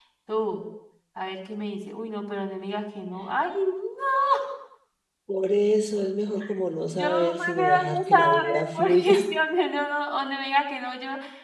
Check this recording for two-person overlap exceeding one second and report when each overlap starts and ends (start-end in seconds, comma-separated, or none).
7.0-9.3